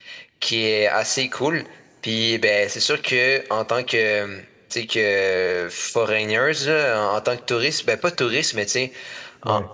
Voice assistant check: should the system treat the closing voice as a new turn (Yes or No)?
No